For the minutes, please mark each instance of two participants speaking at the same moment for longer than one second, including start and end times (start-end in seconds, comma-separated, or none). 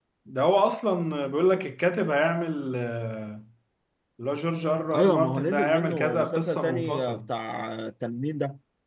5.0-7.2